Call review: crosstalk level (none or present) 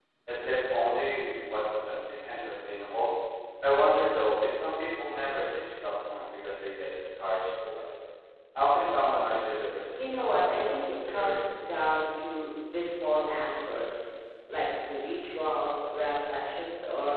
present